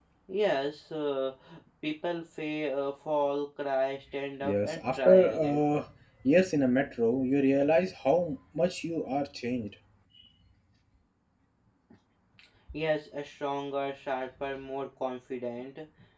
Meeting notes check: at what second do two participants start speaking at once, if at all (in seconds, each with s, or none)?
4.4 s